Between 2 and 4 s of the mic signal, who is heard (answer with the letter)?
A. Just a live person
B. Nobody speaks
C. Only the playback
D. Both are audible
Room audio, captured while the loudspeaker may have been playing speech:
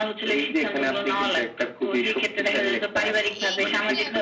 D